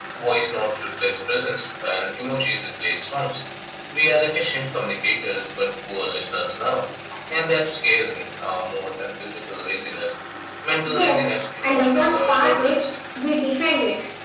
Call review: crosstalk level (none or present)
present